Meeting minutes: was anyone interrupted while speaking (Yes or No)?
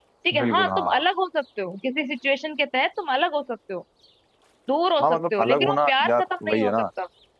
Yes